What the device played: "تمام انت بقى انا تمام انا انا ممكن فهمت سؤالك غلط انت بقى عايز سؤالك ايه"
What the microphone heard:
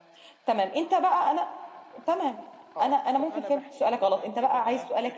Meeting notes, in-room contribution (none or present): present